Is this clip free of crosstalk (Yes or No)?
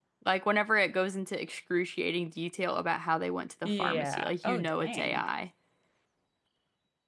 No